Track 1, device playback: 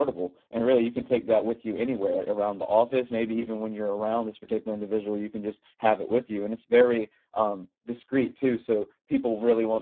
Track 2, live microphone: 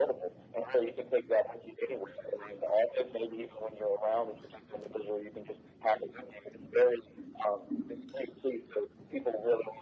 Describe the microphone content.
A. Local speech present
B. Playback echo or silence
B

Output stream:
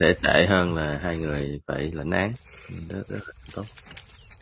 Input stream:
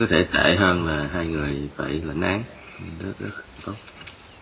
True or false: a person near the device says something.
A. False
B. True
A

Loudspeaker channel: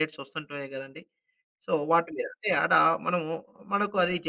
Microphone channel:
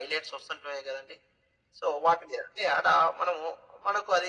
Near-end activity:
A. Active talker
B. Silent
B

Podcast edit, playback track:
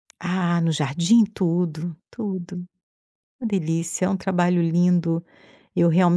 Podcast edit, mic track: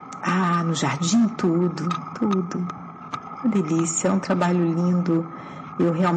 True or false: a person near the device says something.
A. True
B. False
B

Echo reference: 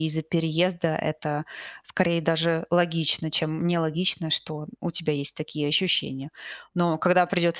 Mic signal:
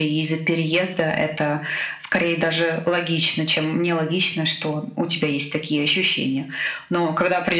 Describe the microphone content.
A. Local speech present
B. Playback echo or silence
B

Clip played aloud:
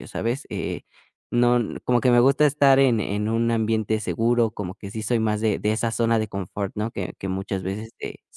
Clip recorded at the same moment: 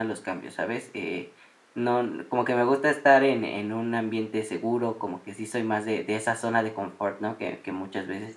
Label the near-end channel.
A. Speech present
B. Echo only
B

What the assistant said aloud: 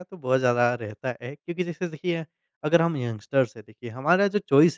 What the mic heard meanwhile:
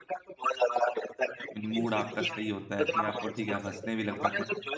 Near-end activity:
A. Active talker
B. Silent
A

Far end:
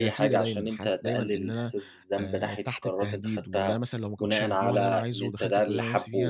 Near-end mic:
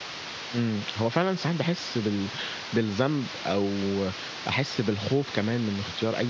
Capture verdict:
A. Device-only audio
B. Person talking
B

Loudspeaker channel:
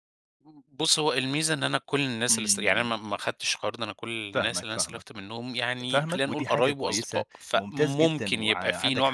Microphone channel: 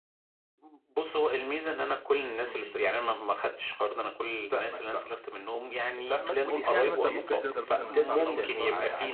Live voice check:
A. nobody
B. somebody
B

